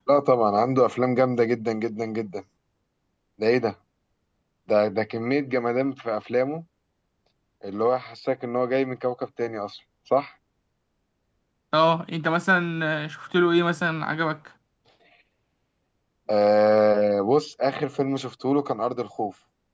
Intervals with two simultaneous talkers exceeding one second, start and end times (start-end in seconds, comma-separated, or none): none